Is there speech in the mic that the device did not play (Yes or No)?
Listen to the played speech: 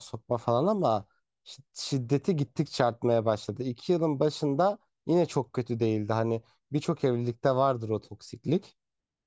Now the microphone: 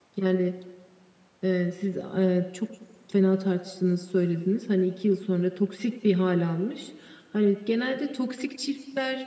Yes